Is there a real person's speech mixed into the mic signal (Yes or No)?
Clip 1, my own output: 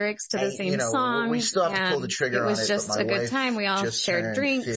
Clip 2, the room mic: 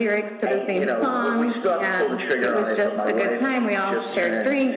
No